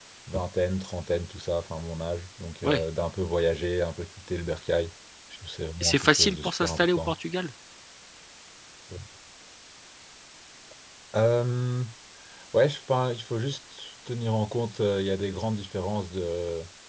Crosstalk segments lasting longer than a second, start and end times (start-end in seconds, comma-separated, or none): 5.8-7.2